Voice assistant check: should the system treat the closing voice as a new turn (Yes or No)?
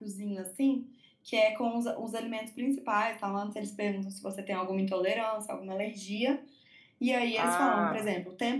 No